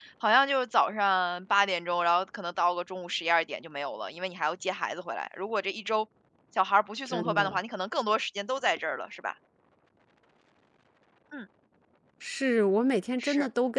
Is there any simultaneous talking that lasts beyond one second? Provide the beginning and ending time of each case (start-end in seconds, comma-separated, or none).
none